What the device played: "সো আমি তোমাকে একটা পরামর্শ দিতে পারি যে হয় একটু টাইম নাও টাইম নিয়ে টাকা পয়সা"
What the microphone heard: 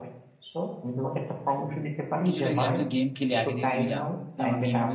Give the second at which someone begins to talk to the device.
2.3 s

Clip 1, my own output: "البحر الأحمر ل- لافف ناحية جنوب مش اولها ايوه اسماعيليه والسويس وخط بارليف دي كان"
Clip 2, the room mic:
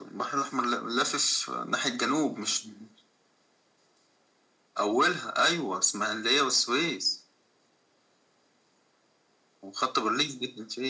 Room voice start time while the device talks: none

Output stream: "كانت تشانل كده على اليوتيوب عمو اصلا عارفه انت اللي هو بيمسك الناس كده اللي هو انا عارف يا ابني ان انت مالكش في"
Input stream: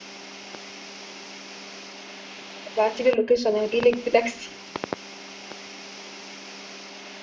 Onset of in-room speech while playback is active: 2.8 s

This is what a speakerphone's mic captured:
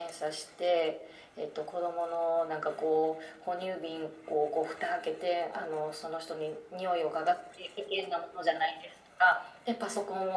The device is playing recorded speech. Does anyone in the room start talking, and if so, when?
none

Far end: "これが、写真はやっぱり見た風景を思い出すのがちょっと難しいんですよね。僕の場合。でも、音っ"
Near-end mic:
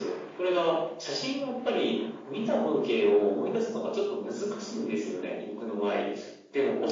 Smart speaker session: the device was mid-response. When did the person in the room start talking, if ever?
none

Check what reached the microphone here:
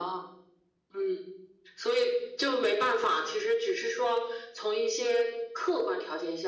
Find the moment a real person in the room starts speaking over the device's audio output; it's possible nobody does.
none

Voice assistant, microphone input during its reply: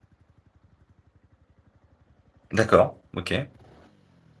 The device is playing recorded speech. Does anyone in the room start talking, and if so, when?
2.5 s

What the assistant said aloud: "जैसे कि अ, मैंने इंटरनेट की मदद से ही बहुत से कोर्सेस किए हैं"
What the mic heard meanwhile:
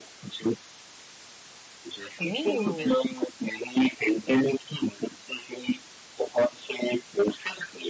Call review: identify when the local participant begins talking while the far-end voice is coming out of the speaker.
2.2 s

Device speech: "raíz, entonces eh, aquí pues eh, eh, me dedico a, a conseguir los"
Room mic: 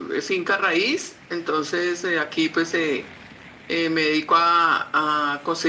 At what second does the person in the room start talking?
none

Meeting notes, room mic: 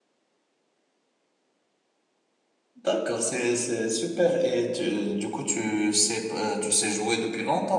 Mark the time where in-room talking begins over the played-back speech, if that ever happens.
2.7 s

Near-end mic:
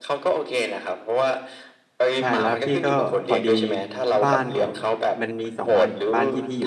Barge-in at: 2.2 s

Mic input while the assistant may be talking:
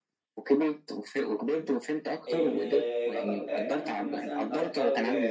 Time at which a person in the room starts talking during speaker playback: 2.3 s

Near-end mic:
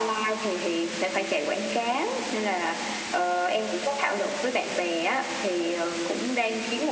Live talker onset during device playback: none

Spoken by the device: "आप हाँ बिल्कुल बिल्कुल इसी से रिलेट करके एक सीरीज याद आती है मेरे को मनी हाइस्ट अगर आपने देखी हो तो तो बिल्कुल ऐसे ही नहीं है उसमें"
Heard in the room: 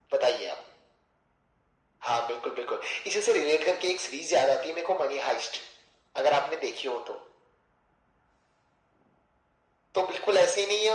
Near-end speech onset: none

